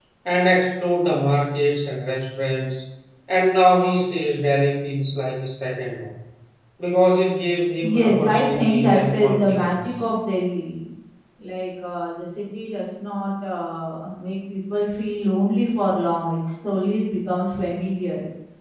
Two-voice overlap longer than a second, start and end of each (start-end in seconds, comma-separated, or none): 7.8-10.0